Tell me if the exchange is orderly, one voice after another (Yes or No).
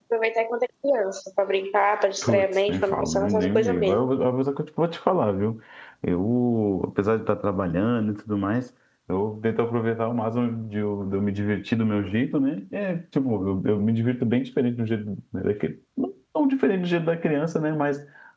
No